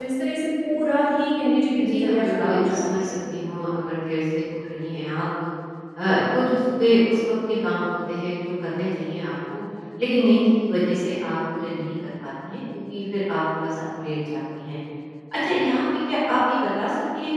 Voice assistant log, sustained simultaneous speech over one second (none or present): present